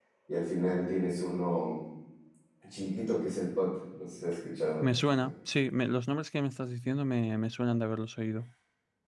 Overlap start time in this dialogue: none

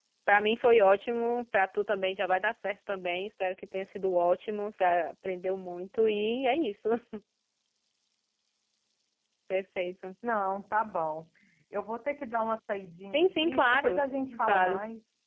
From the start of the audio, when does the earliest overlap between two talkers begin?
13.1 s

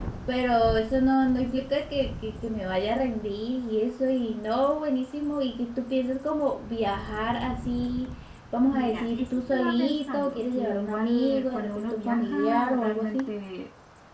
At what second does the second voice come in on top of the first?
8.7 s

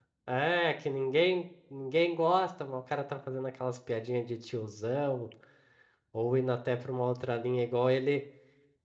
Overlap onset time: none

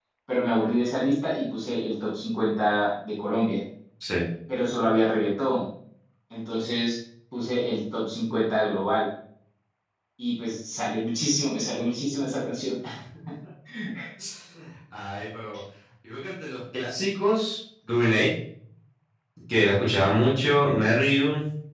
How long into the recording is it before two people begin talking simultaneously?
none

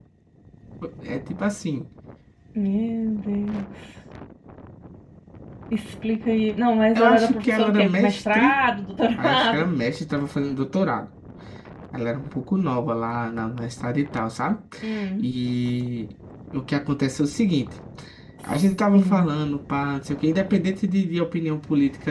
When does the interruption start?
7.0 s

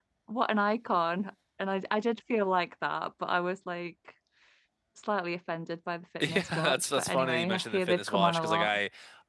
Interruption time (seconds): 6.2 s

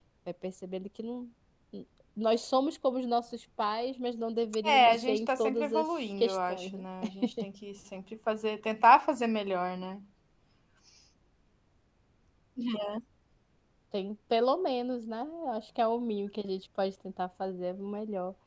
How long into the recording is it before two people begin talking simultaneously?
4.6 s

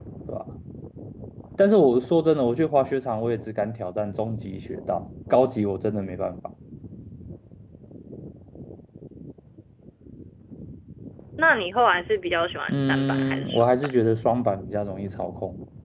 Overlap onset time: 12.7 s

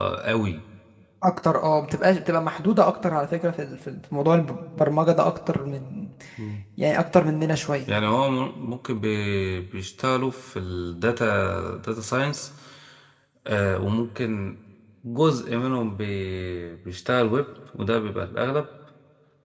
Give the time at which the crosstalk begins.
none

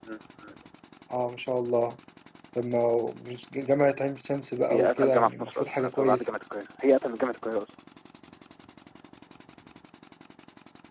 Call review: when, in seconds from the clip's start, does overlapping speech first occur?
4.7 s

